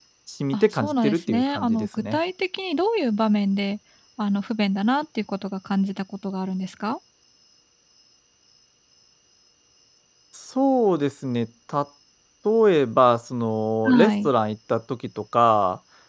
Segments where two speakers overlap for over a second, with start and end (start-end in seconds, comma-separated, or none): 0.5-2.2